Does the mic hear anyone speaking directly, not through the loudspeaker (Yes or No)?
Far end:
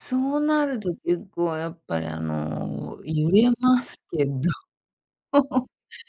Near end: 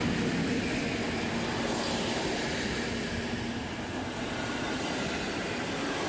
No